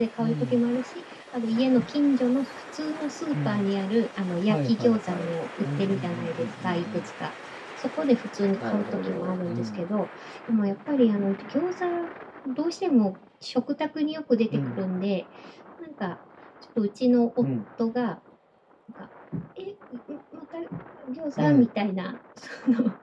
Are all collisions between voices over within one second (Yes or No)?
No